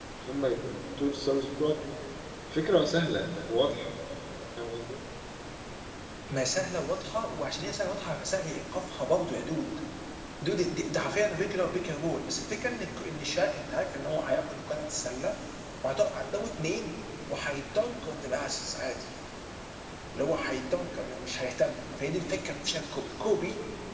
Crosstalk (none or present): none